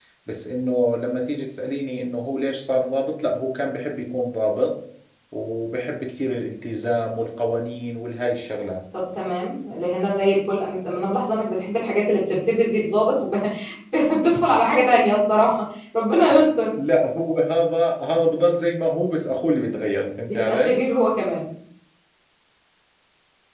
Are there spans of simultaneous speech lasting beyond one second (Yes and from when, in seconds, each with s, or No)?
No